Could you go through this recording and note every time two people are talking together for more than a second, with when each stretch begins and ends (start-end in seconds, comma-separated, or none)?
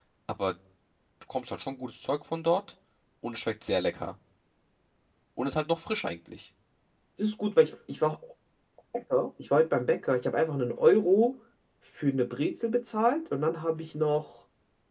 none